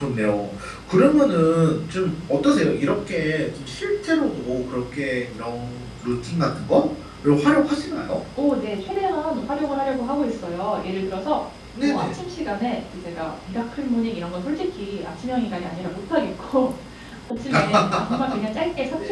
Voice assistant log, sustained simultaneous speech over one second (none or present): none